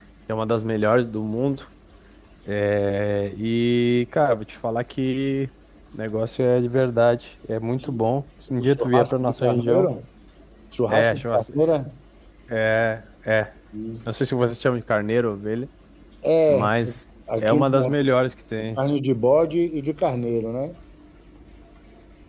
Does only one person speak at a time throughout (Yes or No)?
No